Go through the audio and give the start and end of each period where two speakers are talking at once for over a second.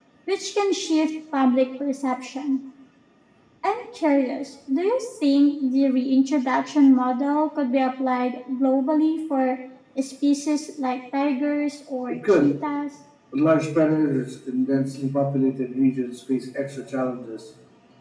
none

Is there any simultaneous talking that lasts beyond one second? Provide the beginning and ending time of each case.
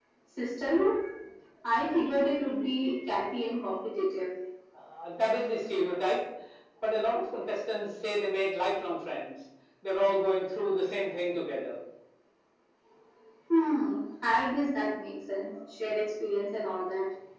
none

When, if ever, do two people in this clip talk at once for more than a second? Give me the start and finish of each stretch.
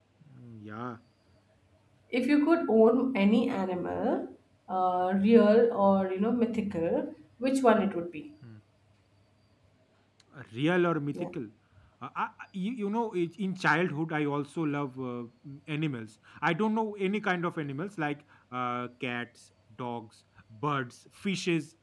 none

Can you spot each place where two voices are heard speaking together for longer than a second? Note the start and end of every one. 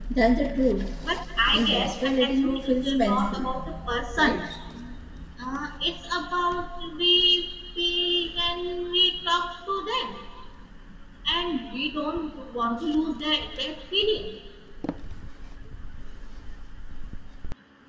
1.5-3.5

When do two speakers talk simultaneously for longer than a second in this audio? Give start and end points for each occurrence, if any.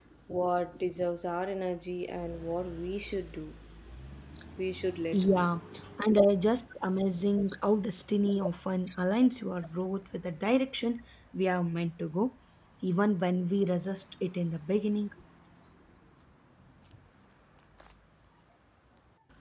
none

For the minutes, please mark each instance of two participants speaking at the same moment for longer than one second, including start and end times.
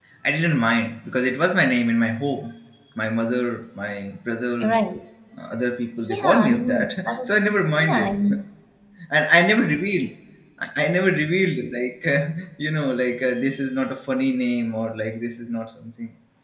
6.1-7.4

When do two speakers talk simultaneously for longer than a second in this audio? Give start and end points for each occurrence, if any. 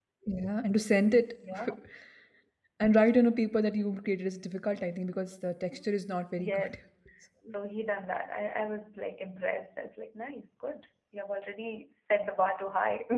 none

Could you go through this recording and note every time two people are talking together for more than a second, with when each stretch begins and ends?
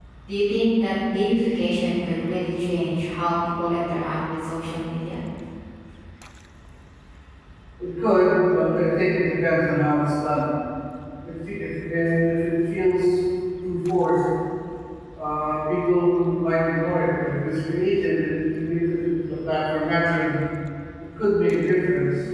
none

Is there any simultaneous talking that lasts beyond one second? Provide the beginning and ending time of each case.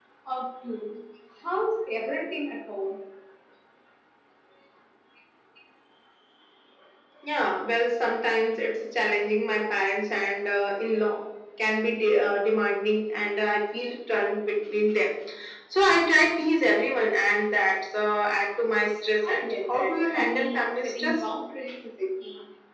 19.2-21.3

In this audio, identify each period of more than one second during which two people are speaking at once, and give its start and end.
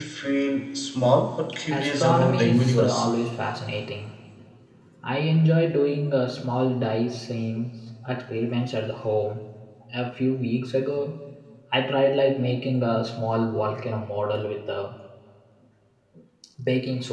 1.7-3.0

